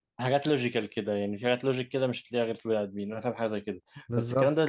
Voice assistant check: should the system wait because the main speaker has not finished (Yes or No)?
Yes